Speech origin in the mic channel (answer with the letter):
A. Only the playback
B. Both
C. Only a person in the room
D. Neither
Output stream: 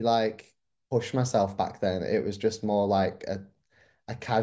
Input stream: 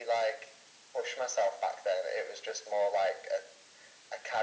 A